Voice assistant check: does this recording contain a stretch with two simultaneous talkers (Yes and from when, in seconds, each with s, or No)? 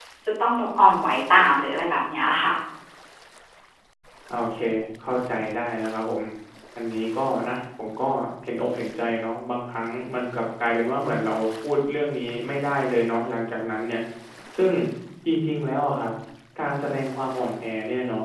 No